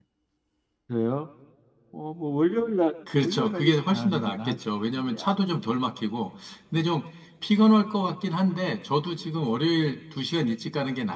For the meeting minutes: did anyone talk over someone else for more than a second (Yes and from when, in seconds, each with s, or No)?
Yes, from 3.1 s